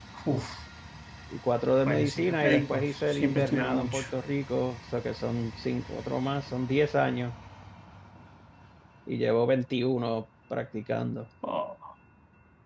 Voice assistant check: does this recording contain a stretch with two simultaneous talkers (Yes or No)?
Yes